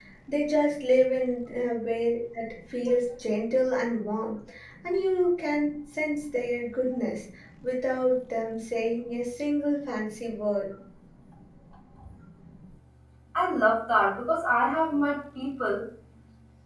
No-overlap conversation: Yes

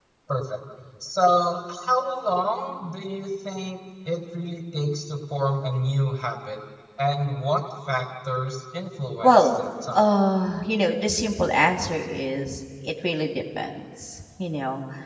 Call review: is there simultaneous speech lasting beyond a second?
No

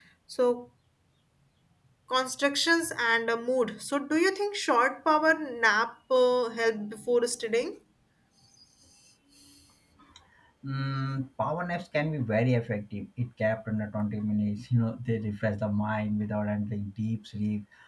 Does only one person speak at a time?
Yes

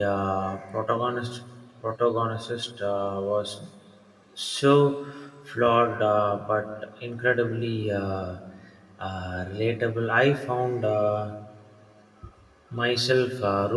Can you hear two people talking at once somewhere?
No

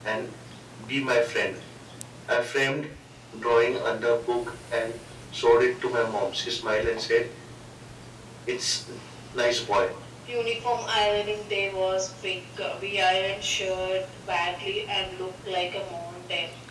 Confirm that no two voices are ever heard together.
Yes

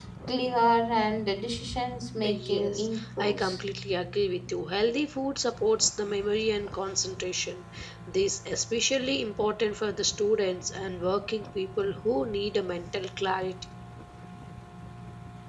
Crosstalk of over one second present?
Yes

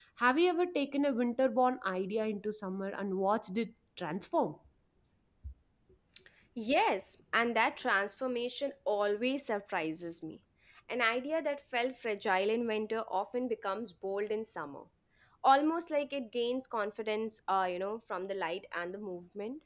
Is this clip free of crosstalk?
Yes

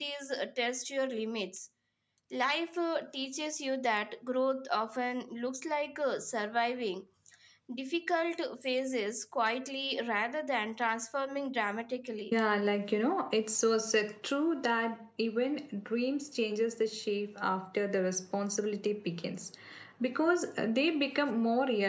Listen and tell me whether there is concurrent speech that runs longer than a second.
No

